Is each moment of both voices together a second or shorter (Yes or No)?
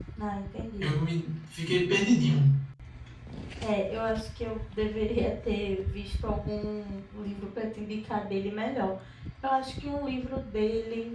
Yes